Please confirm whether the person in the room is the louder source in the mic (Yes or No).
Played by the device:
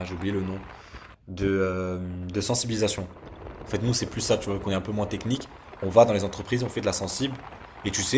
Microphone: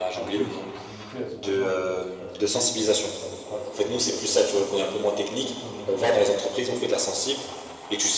No